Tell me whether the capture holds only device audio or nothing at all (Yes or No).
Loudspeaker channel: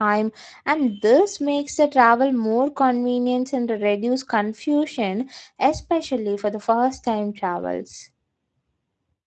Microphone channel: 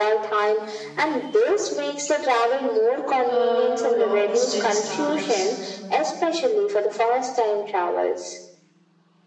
No